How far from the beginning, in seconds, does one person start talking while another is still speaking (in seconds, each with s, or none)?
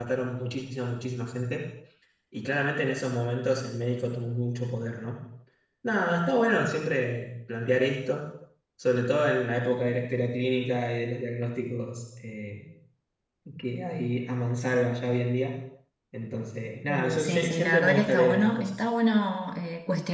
16.9 s